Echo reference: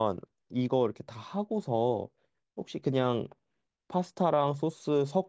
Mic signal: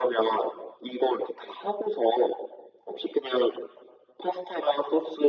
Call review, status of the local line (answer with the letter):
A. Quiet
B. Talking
A